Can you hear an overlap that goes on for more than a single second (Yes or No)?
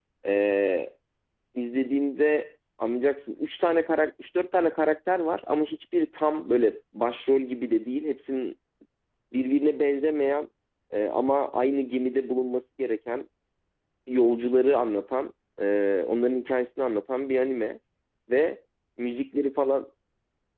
No